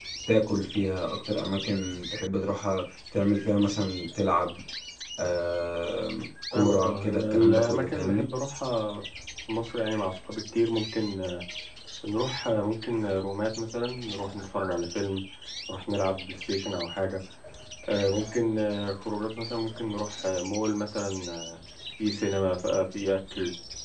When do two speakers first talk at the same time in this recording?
6.5 s

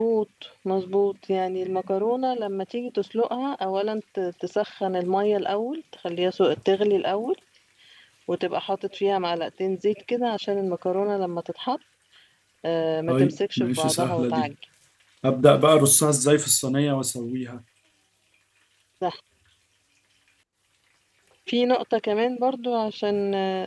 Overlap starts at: 13.1 s

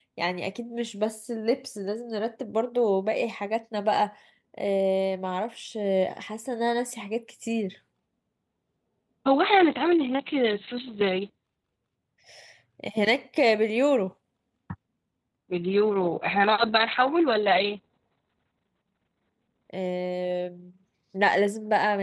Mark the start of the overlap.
none

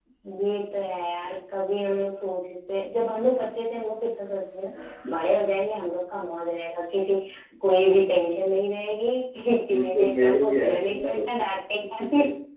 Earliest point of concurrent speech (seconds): 9.7 s

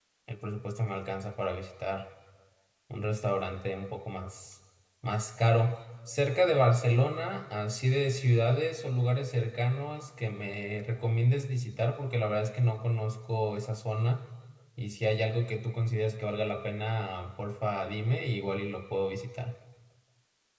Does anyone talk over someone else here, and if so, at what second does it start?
none

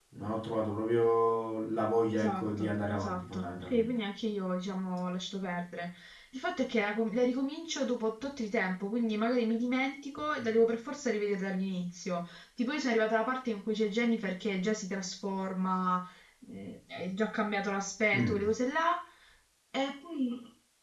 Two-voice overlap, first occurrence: 2.1 s

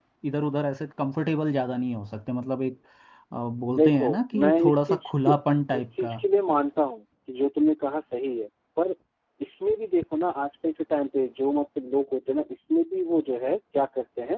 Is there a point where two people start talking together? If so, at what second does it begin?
3.8 s

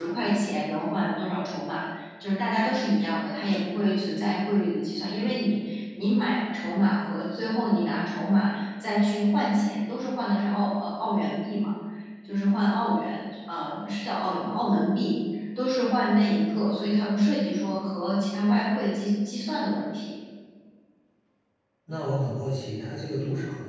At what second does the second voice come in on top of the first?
none

